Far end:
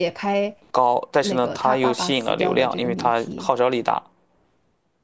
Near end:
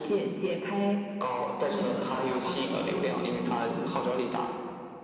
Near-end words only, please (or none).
none